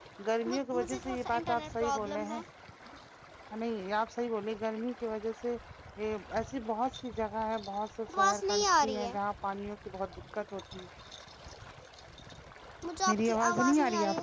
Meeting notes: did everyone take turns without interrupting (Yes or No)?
No